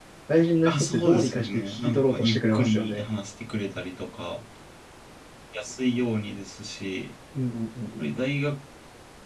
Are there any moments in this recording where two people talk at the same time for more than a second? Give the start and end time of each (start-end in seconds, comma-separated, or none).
0.6-3.1